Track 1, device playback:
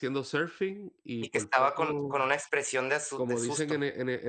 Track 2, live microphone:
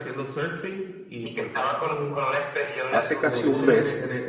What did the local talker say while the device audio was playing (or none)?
hace casi un mes